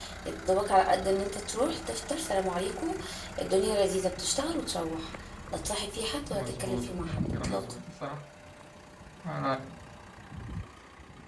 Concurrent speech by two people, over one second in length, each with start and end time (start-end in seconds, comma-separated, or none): 6.3-7.6